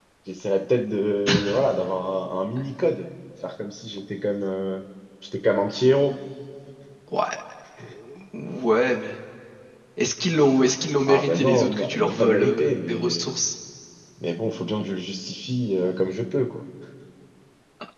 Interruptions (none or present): present